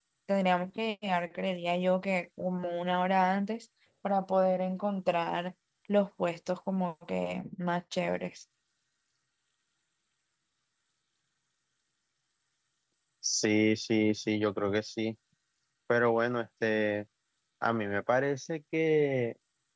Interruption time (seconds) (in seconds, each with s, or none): none